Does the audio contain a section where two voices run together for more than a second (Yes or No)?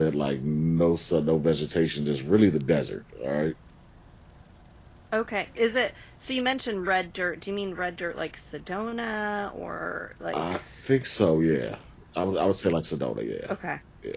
No